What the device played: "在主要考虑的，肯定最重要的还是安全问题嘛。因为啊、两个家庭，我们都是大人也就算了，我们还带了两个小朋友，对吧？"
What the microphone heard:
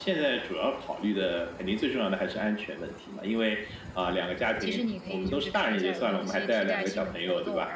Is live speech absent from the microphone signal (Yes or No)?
No